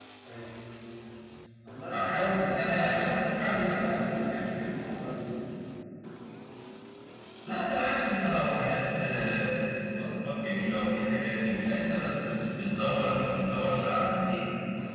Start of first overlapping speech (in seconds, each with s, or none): 1.9 s